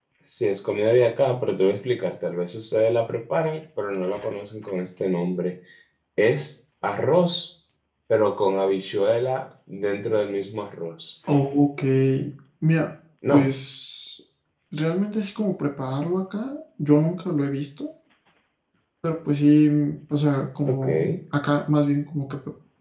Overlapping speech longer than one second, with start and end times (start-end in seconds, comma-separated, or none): none